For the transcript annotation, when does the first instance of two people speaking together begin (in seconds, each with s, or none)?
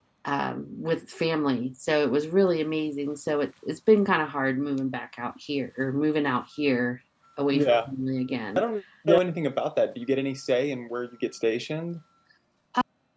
none